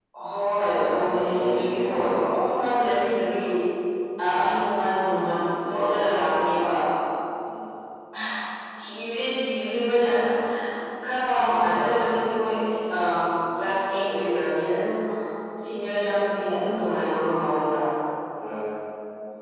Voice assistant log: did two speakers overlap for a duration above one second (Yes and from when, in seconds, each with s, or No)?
Yes, from 0.8 s